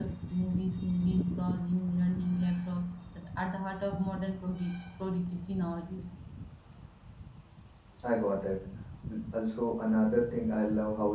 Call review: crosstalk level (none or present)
none